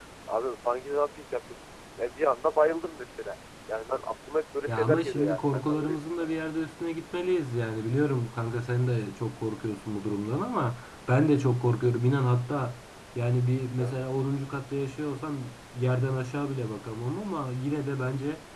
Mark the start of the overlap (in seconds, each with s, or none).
4.7 s